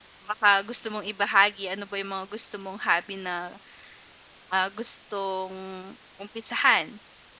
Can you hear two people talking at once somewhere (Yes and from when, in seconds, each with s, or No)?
No